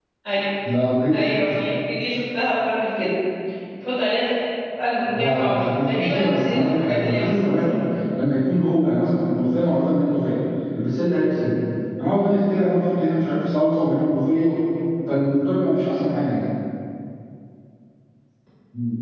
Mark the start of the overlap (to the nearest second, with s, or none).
5 s